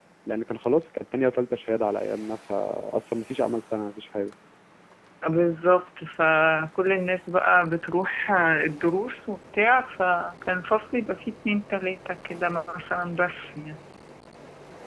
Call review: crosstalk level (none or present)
none